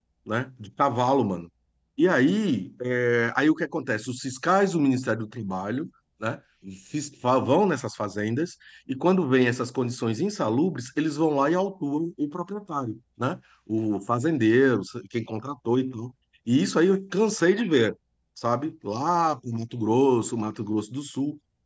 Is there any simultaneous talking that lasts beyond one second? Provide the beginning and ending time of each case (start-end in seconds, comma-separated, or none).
none